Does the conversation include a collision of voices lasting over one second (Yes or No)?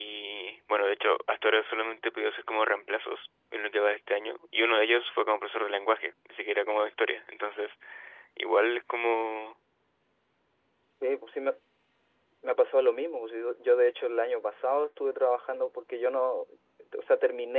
No